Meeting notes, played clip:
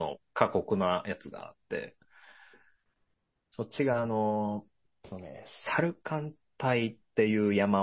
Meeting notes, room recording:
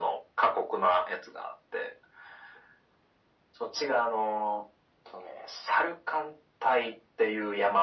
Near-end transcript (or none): none